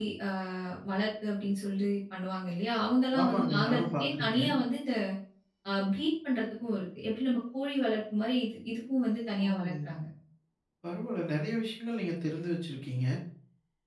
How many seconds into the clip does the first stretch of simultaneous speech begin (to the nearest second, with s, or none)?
3 s